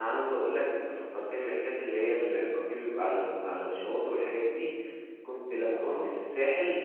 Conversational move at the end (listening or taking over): listening